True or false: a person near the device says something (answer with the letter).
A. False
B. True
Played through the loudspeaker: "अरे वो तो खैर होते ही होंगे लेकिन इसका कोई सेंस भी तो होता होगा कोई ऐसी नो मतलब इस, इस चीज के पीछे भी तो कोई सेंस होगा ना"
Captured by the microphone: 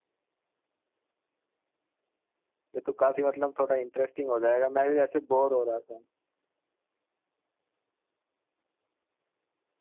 B